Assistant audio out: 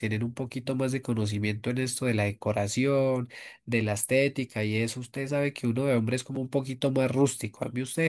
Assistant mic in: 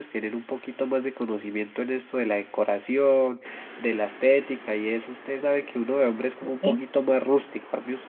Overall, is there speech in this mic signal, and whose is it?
both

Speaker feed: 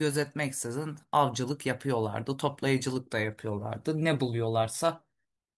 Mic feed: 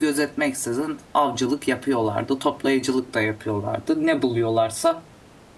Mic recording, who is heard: echo only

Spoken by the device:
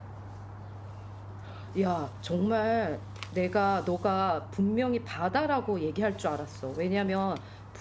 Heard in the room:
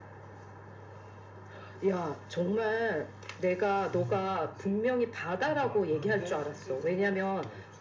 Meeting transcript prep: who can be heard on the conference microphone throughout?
both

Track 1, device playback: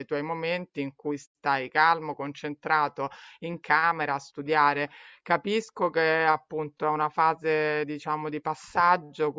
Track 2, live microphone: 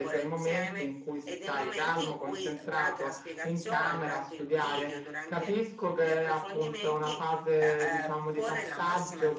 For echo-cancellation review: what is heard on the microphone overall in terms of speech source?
both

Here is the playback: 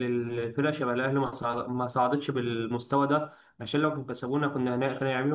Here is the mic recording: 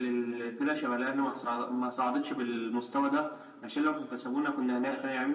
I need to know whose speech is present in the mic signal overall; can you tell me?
echo only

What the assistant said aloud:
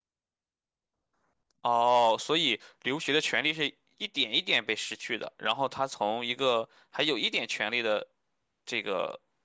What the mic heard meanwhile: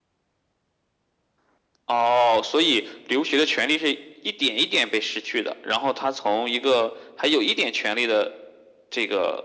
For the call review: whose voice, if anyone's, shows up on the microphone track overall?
echo only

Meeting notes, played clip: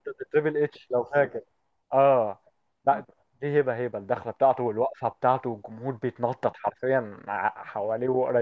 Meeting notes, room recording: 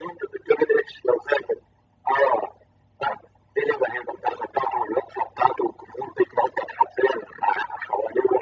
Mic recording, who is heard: echo only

